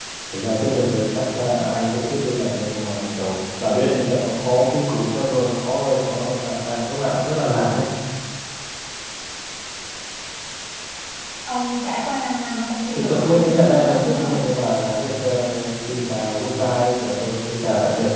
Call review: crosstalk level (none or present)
present